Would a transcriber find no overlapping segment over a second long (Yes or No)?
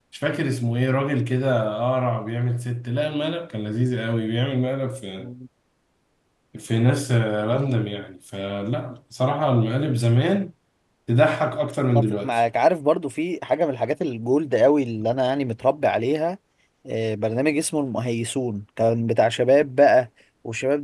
Yes